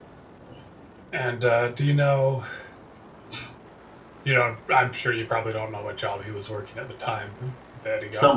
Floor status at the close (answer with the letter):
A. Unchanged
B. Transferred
B